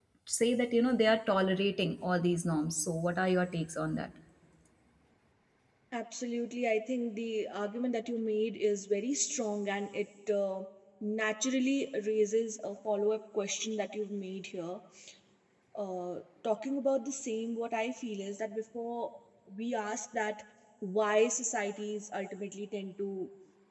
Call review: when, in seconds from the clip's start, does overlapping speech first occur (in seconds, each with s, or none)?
none